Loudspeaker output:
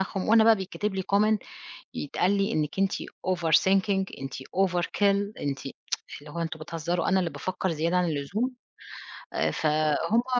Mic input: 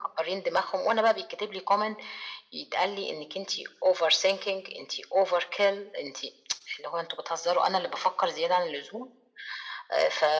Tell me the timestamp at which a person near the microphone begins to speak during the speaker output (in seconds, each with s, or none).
none